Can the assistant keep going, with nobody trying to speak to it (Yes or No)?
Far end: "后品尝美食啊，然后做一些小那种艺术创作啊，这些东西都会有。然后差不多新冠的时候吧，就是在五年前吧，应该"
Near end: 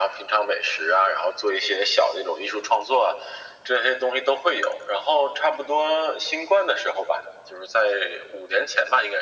Yes